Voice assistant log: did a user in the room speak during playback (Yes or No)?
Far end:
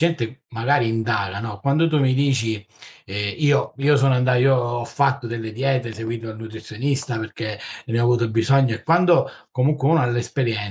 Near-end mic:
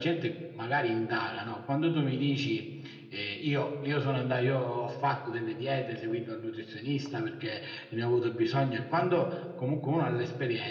No